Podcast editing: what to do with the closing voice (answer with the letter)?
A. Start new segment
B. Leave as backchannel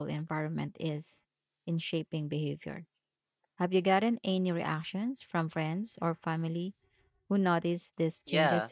A